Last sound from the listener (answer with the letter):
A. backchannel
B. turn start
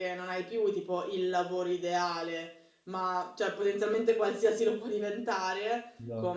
A